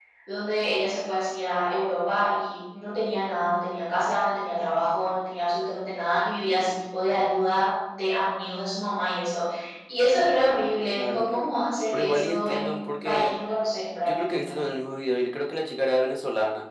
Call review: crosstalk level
present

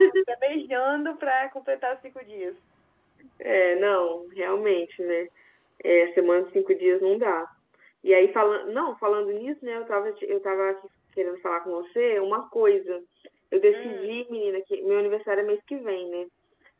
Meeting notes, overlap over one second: none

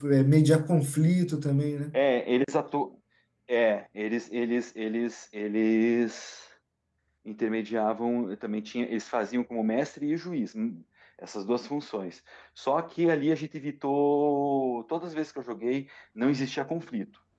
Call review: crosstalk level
none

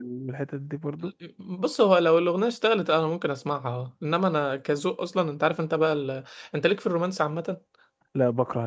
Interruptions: none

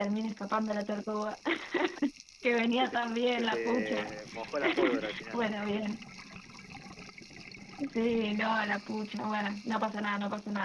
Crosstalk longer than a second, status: present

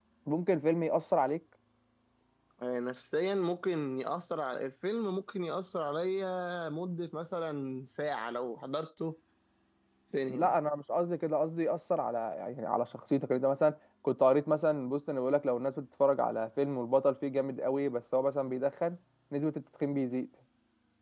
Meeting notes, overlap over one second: none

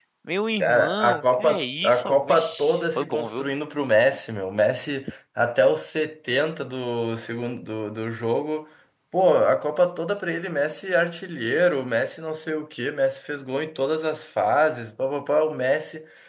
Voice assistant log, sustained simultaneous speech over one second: present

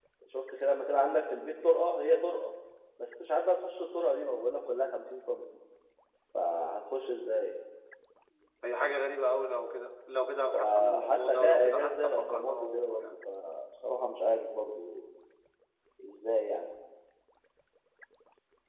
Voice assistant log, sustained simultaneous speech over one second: present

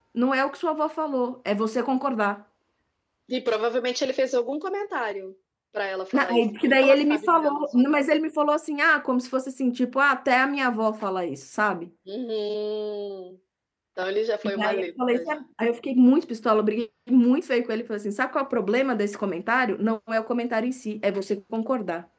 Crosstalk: present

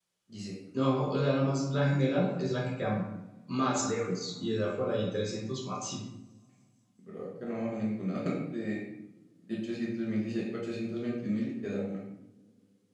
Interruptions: none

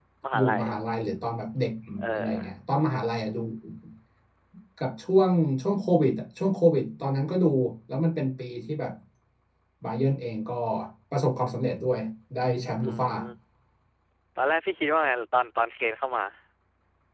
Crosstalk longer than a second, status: none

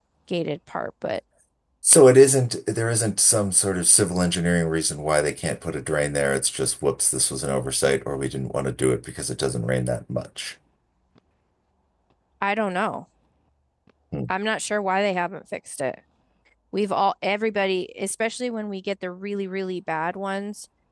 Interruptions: none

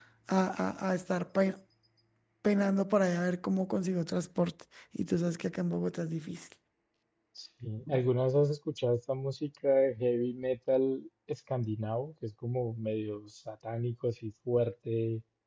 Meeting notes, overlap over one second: none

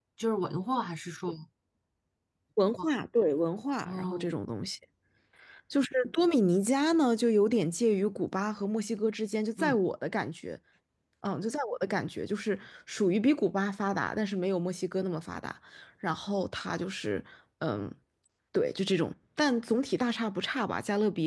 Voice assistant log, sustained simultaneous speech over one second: none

